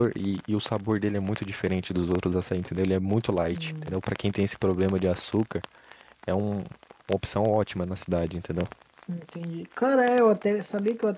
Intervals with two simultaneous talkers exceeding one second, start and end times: none

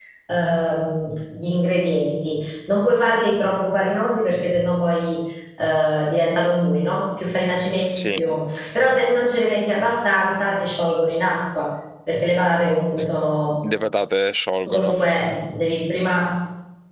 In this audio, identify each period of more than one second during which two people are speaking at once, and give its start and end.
none

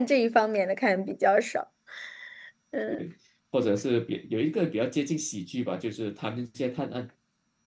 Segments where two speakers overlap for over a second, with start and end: none

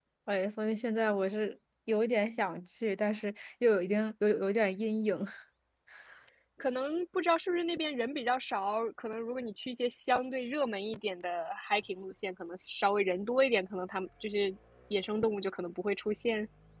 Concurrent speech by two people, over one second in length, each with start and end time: none

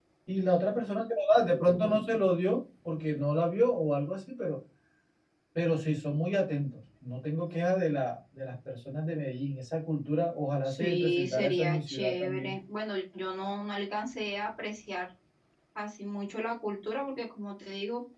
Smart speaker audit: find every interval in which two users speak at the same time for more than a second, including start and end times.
10.6-12.5

